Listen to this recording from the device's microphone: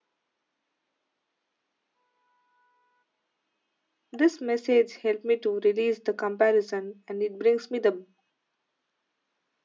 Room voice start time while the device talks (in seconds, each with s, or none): 4.1 s